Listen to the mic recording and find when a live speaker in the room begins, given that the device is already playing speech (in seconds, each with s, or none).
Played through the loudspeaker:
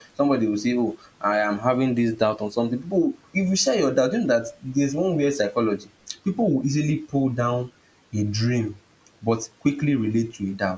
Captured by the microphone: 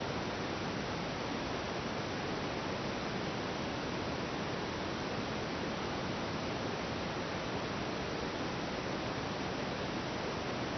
none